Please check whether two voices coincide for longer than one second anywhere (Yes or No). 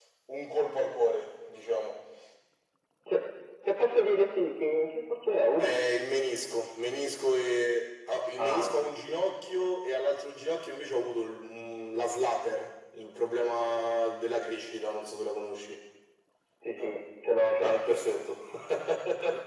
No